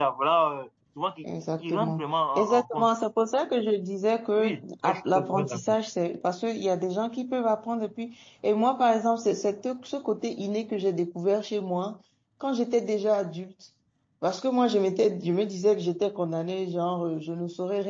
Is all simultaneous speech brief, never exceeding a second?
No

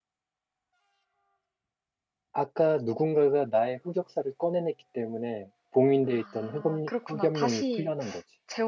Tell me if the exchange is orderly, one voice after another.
No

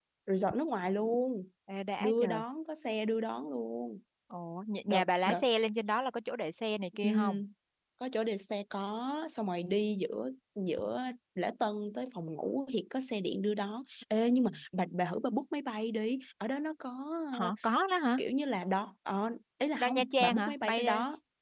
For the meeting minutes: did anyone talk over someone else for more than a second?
Yes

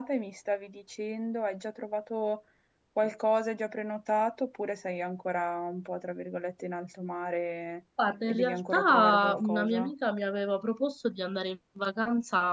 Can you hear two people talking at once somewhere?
Yes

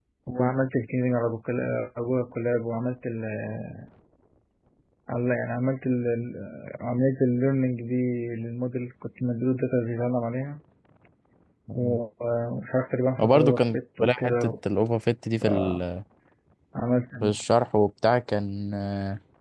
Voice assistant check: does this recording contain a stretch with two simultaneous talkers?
Yes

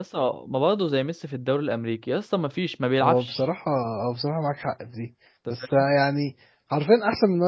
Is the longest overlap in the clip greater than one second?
No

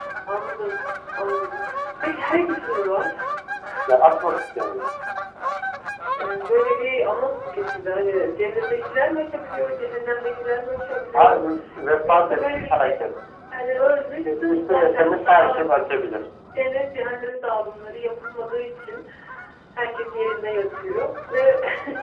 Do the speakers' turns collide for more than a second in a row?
Yes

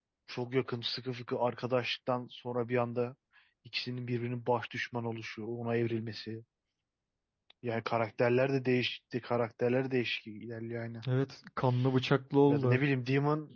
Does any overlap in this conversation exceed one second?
No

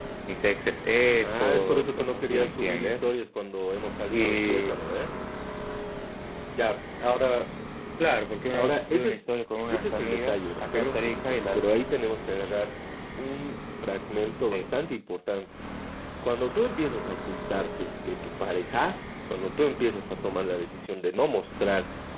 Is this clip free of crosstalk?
No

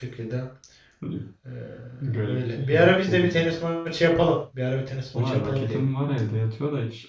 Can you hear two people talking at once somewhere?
Yes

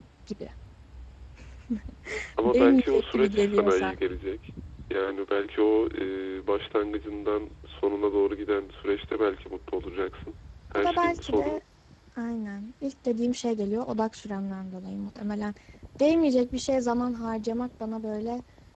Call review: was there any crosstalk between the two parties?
Yes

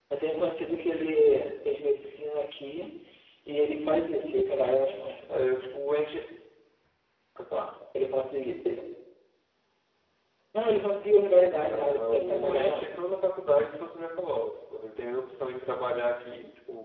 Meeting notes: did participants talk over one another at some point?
Yes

